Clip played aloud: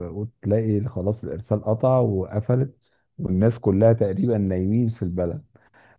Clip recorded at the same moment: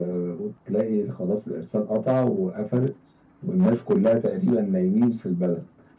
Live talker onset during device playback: none

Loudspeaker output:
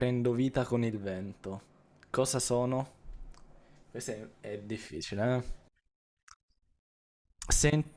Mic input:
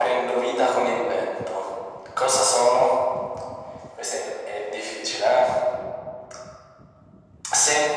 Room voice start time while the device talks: none

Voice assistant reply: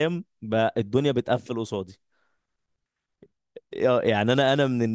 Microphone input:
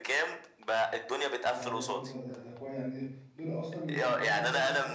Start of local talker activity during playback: 1.4 s

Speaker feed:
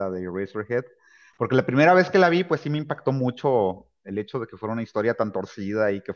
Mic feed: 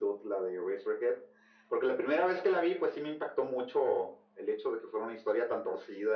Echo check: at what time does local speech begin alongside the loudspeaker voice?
none

